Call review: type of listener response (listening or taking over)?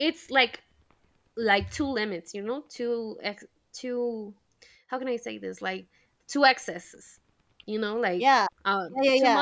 taking over